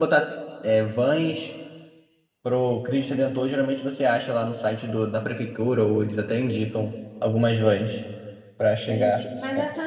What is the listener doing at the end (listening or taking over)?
taking over